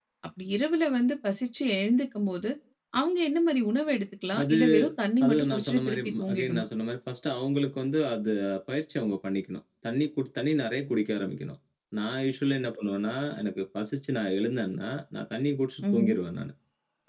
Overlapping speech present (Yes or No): Yes